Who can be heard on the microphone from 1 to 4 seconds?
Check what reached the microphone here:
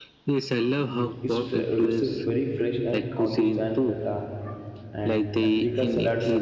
both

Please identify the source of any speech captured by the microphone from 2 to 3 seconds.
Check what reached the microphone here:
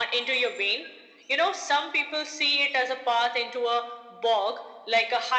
echo only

